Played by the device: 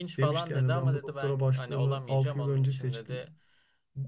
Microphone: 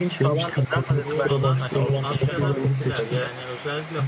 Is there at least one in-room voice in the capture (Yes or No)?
Yes